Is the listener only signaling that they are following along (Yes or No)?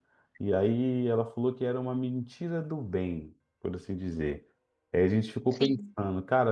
Yes